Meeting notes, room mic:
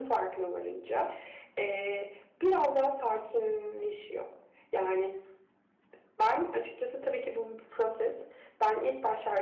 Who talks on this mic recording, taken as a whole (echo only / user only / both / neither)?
echo only